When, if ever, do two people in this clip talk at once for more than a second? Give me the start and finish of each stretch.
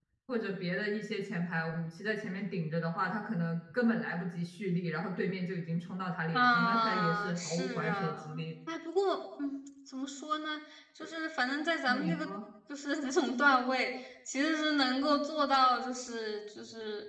6.3-8.2

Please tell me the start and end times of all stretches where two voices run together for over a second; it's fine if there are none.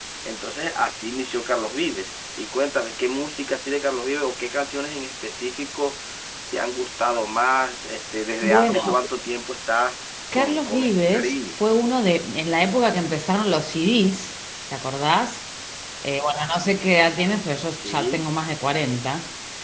10.3-11.6

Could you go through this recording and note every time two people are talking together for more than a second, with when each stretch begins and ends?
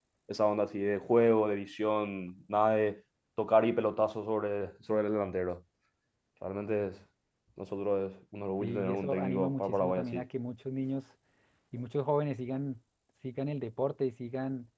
8.6-10.2

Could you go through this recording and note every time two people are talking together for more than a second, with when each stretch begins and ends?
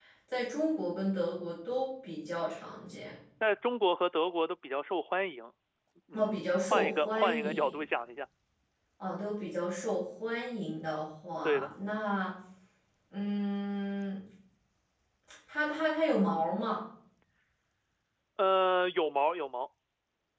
6.1-7.7

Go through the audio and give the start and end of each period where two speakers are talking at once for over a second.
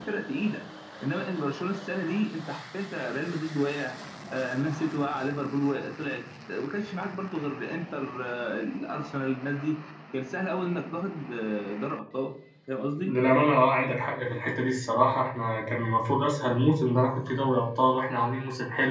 none

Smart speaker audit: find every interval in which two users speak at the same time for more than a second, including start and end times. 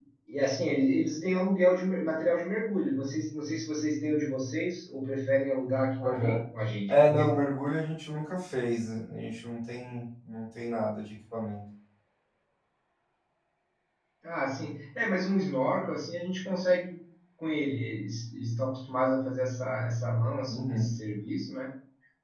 none

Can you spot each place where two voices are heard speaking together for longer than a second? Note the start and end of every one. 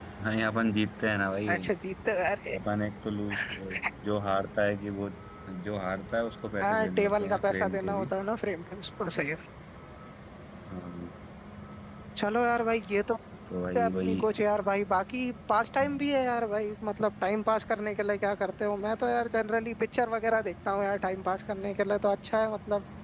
6.6-8.0

